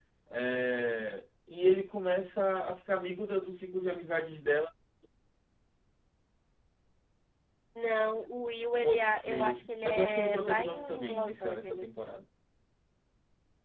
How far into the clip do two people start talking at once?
8.8 s

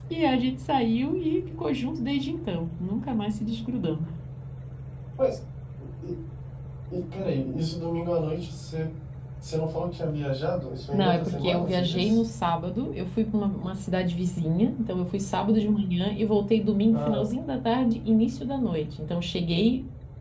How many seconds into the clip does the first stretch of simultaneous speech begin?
10.9 s

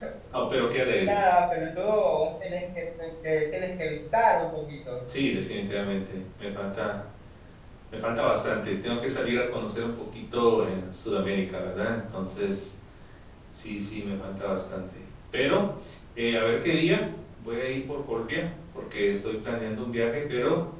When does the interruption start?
none

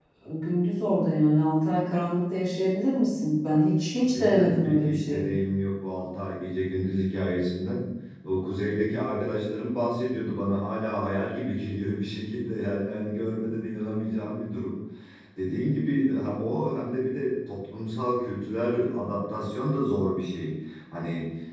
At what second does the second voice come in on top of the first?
4.0 s

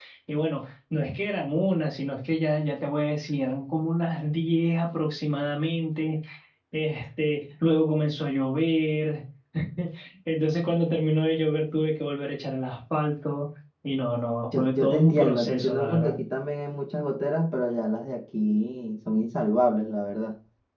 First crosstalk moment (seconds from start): 14.5 s

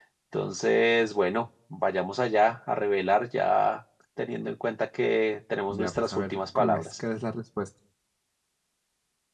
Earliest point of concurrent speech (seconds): 5.7 s

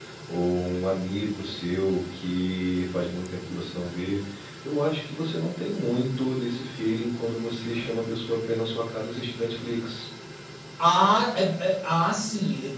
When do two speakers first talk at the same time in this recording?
none

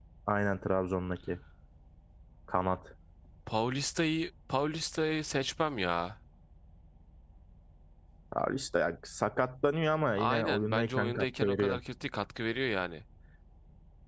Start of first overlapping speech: 10.2 s

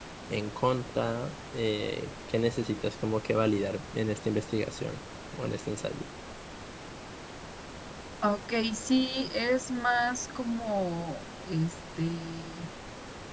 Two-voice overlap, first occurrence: none

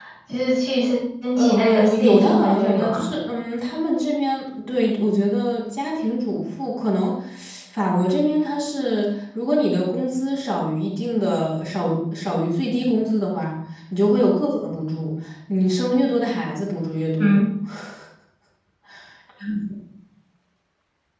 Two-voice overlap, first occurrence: 1.4 s

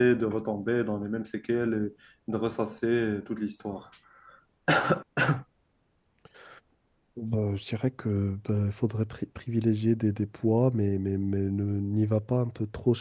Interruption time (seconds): none

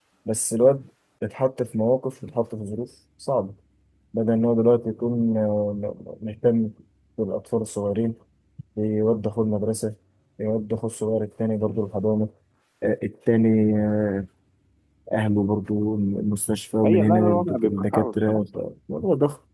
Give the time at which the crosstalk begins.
16.8 s

